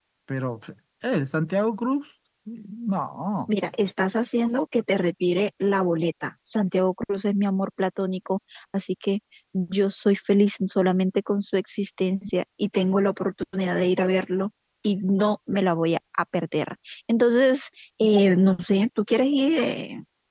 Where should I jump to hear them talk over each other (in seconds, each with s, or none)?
none